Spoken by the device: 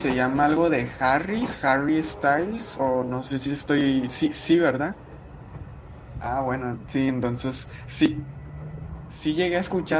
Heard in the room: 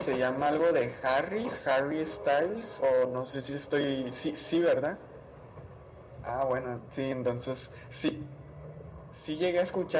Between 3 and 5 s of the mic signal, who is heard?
echo only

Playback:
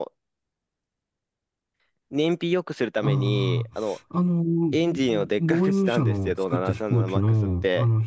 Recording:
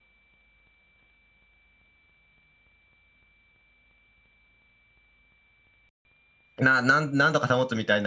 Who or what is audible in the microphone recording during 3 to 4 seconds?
neither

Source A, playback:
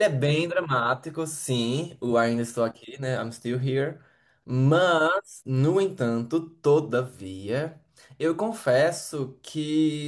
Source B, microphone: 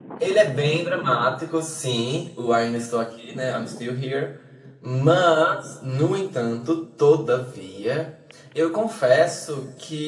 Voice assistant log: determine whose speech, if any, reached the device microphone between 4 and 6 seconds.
echo only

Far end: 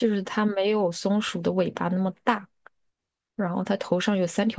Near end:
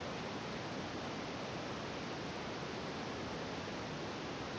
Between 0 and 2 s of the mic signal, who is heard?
neither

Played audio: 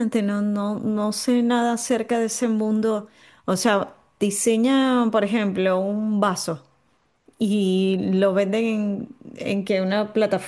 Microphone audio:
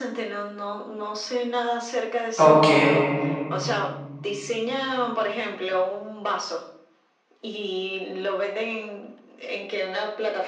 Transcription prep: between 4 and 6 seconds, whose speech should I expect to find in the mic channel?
echo only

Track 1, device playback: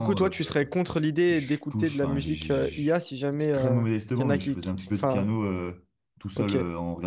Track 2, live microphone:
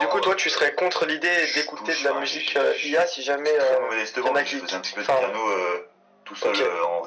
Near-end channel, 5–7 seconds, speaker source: echo only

